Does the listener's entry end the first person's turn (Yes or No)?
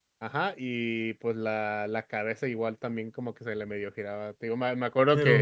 No